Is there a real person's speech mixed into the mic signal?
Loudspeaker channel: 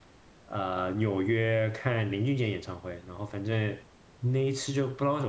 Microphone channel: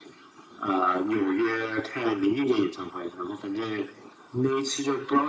No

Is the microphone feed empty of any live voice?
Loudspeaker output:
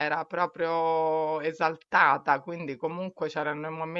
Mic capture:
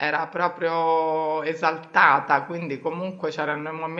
Yes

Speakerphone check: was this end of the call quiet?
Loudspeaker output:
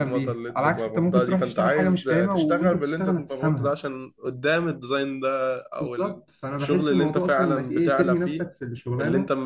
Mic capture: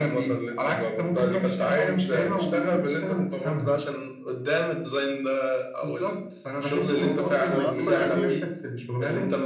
No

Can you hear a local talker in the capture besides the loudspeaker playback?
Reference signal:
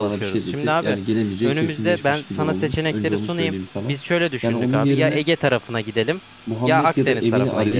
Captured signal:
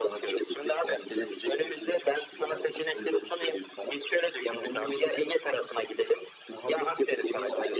No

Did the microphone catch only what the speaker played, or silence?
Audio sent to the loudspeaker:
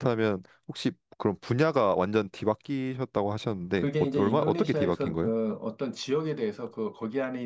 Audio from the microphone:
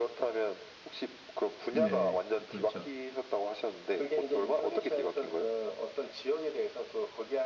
No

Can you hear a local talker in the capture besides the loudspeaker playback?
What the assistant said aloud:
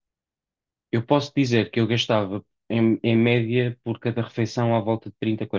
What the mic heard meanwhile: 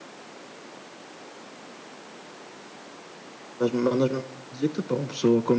Yes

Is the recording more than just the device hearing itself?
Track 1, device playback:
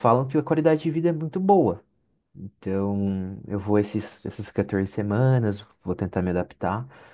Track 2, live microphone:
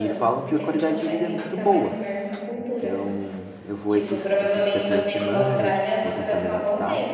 Yes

